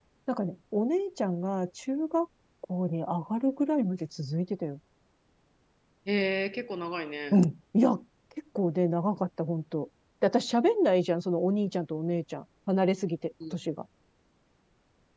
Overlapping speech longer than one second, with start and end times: none

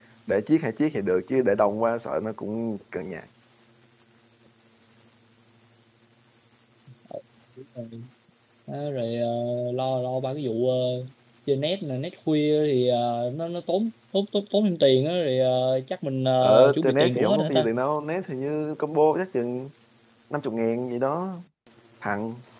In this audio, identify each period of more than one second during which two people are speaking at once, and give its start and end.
16.4-17.7

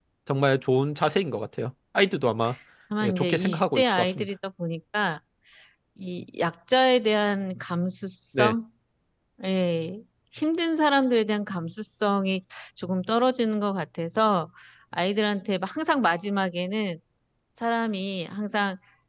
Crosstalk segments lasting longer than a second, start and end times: 3.0-4.3

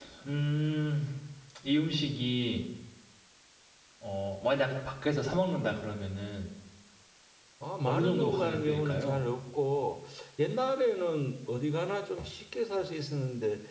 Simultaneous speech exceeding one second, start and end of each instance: 7.9-9.2

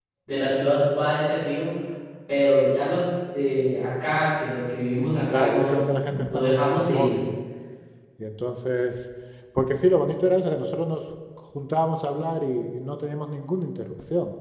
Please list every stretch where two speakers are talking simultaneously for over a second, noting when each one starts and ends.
5.3-7.1

